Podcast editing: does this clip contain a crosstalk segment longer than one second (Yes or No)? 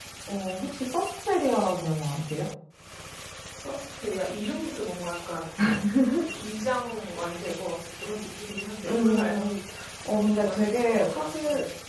Yes